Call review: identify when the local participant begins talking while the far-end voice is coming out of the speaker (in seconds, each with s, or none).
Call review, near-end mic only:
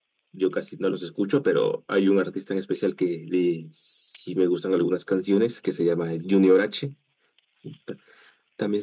none